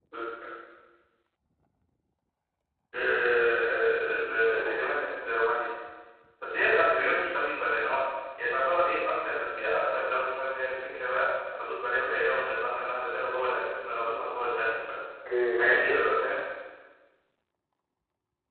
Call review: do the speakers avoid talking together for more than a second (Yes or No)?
Yes